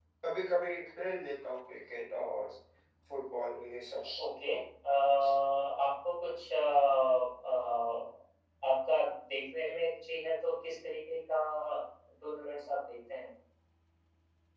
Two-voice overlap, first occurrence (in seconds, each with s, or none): none